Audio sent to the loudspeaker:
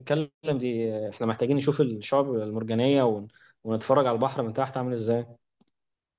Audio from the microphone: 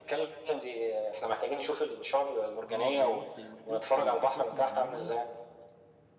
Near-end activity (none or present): present